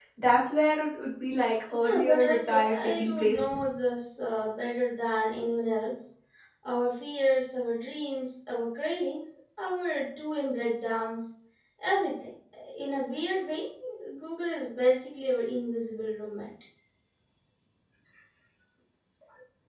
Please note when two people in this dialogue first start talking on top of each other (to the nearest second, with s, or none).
2 s